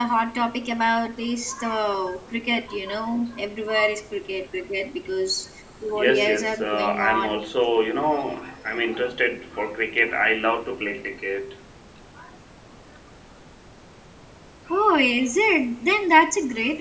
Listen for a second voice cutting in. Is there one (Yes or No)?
Yes